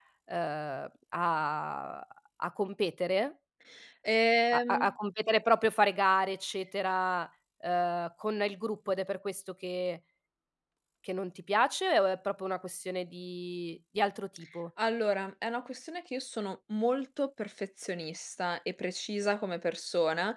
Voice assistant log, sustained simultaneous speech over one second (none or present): none